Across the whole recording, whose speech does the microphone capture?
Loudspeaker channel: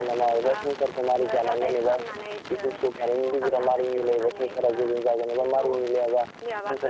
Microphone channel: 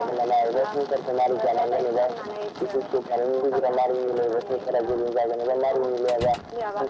echo only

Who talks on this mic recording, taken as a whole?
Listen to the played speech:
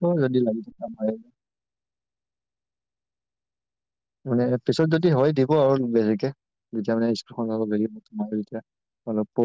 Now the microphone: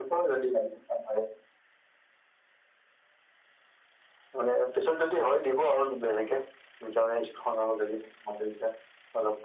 echo only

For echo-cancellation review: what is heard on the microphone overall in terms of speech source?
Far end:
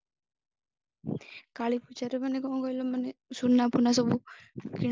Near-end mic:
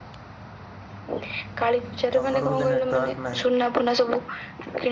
both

